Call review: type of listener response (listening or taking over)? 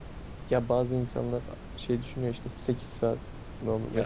listening